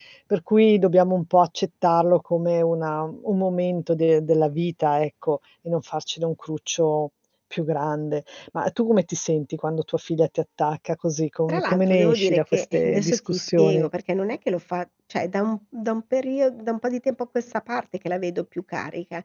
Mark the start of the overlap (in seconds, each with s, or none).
11.5 s